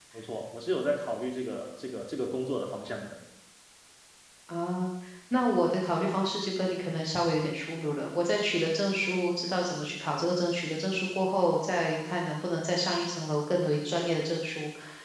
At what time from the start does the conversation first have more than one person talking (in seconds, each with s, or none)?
none